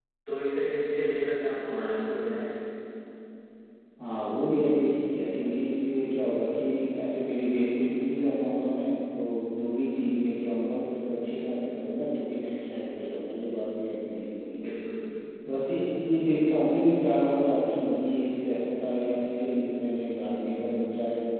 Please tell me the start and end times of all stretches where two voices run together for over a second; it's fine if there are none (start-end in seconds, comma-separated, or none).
none